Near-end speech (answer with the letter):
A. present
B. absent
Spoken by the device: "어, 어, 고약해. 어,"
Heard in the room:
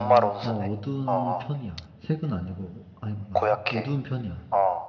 A